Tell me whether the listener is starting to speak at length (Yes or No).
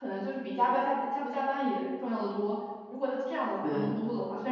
No